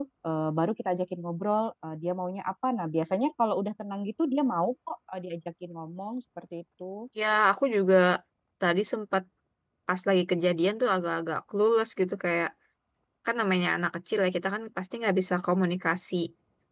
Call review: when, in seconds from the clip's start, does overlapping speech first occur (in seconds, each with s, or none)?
none